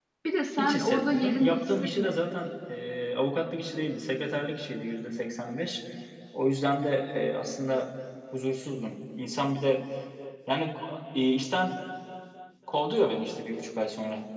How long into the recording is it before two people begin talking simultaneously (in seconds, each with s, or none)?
0.6 s